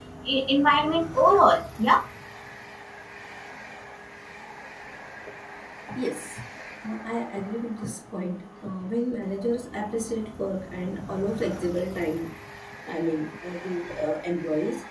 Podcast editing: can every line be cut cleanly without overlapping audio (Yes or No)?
Yes